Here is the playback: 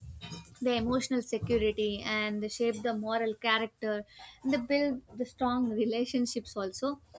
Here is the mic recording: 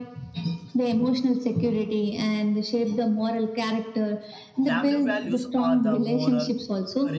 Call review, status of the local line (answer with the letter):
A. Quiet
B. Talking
B